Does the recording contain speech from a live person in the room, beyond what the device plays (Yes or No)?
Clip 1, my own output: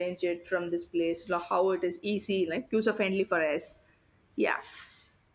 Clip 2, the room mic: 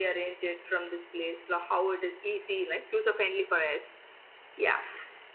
No